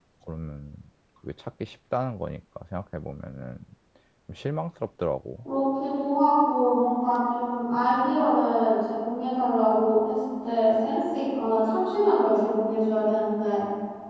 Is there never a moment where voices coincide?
Yes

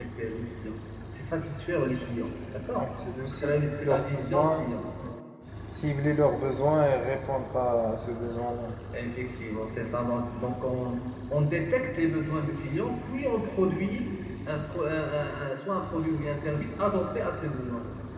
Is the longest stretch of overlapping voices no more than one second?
No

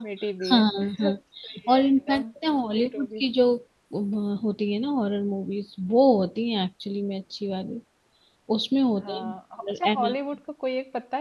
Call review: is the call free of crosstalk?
No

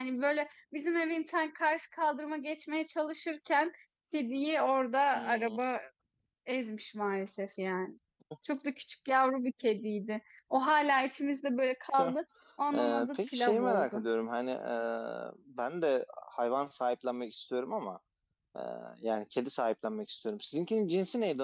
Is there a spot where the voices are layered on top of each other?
Yes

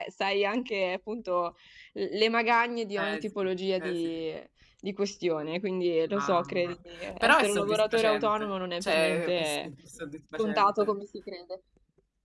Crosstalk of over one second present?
Yes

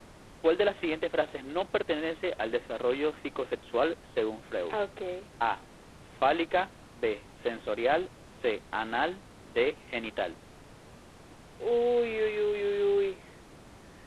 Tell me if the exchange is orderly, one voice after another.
Yes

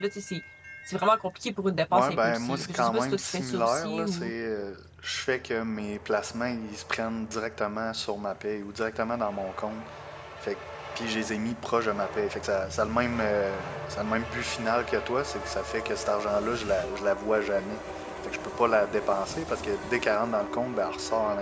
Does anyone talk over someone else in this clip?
Yes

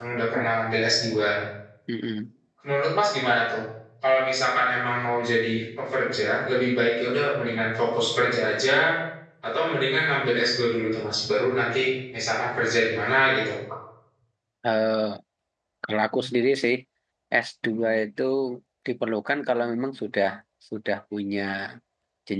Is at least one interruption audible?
No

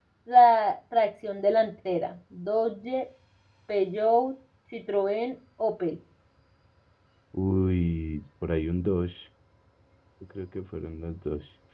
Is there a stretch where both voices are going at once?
No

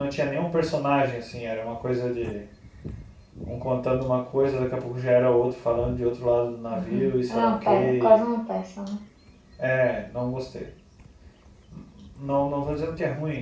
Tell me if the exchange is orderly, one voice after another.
No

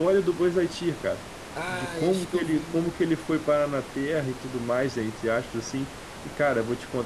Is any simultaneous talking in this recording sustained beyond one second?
Yes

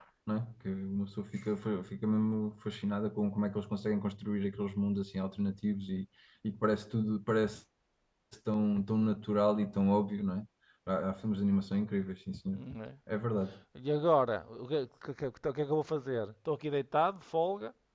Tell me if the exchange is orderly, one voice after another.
Yes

